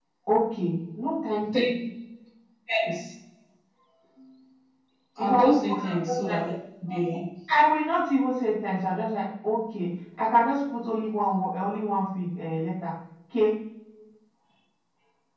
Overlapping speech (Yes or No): Yes